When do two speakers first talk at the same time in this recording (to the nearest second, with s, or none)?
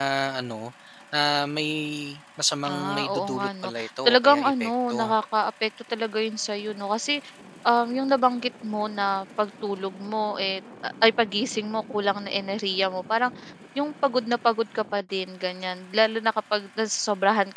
3 s